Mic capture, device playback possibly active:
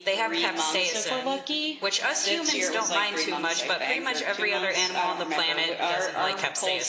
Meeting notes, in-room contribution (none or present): present